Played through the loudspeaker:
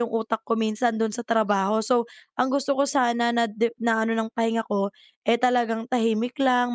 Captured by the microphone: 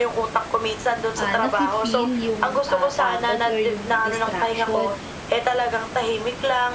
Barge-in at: 1.2 s

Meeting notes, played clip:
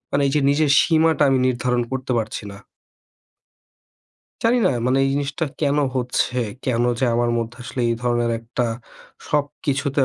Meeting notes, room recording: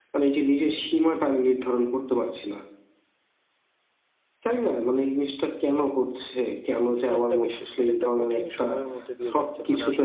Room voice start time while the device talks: 6.8 s

